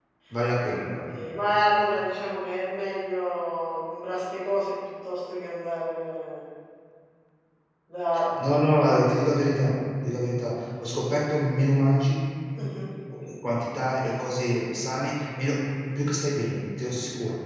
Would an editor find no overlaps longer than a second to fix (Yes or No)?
Yes